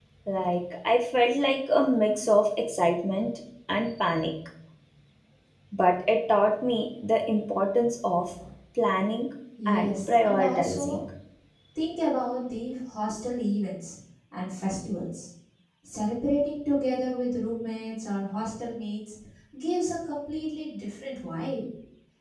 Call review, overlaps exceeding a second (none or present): present